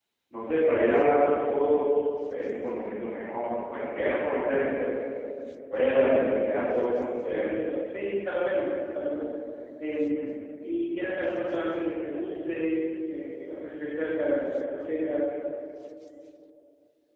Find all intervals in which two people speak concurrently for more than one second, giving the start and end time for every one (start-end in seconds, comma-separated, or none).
none